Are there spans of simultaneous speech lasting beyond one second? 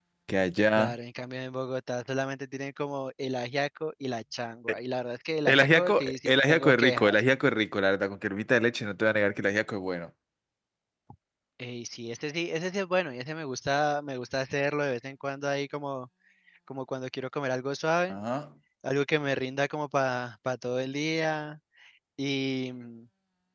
Yes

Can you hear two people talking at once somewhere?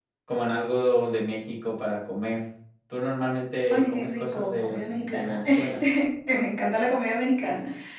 Yes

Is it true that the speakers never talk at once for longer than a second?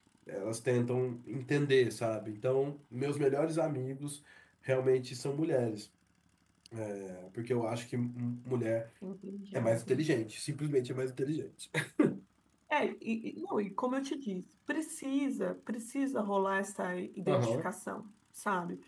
Yes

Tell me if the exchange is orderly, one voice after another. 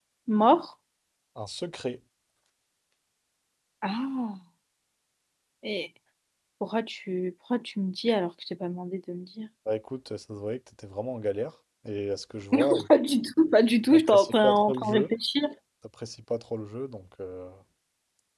No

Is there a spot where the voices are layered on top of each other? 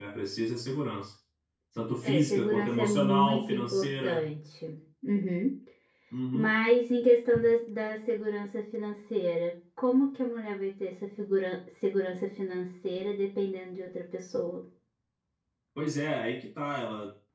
Yes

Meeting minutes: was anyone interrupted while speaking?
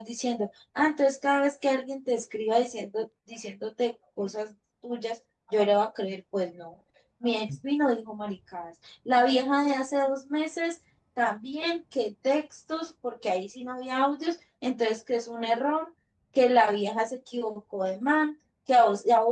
No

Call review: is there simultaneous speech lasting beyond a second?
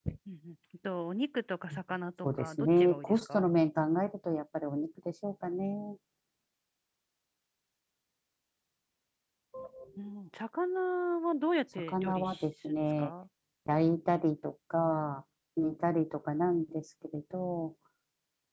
Yes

